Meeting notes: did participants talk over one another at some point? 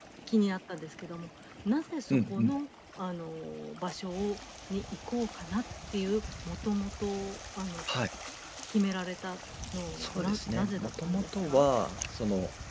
Yes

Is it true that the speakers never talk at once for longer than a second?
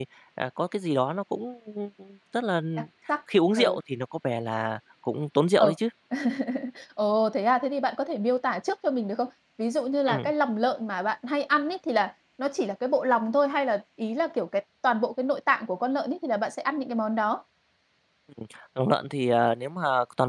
Yes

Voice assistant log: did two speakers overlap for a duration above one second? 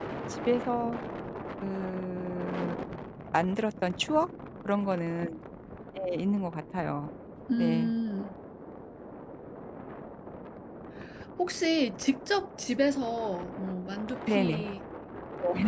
No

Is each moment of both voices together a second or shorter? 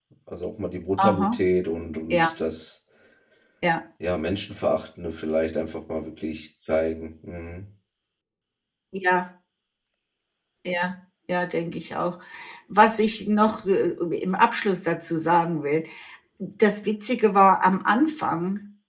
Yes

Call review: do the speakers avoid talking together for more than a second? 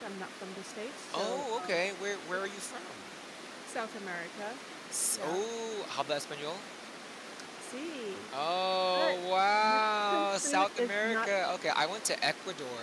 No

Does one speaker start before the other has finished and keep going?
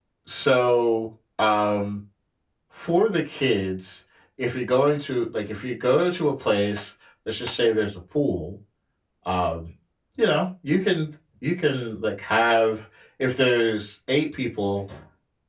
No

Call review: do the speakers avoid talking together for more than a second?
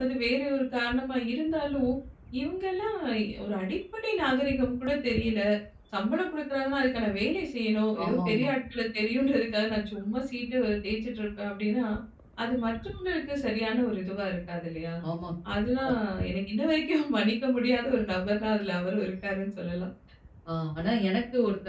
Yes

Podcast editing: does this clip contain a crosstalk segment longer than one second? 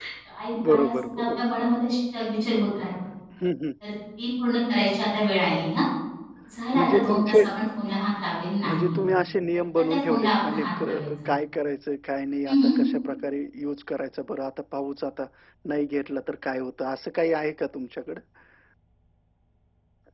Yes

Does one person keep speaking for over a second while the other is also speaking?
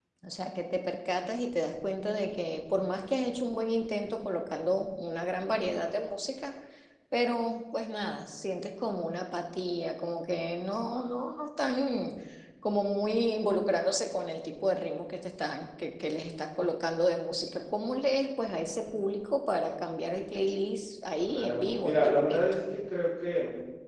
Yes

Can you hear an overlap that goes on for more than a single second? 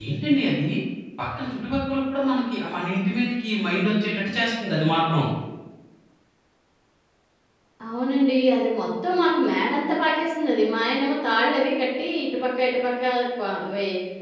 No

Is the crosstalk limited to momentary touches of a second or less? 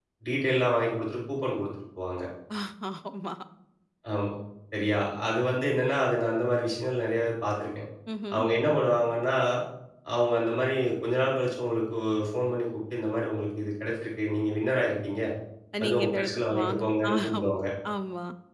No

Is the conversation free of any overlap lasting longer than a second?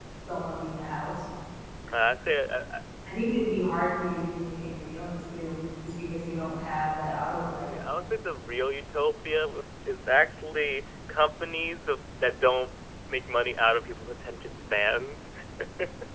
Yes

